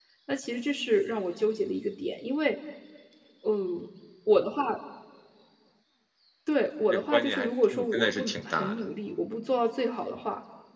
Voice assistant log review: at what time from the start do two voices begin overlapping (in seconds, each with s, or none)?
6.9 s